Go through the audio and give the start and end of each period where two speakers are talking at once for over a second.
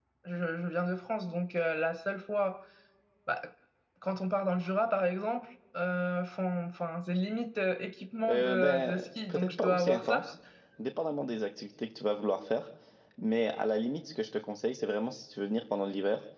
8.3-10.3

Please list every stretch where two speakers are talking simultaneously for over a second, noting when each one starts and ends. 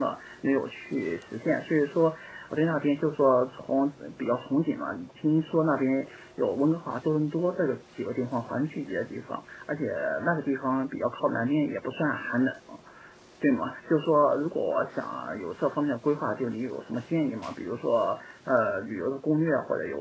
none

